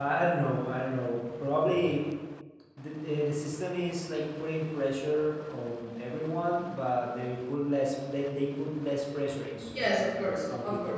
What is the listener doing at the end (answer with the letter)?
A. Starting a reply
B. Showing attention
A